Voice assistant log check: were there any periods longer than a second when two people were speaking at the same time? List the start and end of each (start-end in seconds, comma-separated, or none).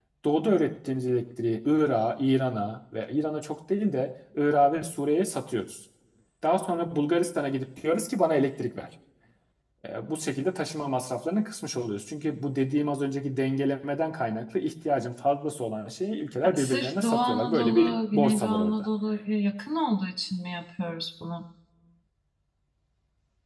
16.5-18.9